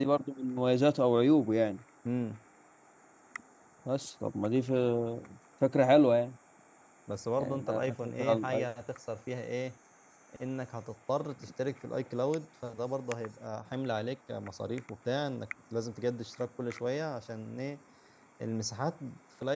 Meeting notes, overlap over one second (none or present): present